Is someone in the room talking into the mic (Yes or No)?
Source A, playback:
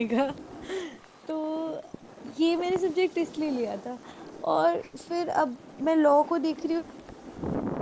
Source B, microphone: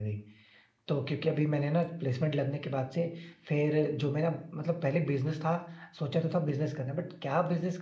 Yes